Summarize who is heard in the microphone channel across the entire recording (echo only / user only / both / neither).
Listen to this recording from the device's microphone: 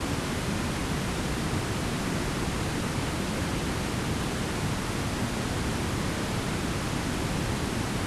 neither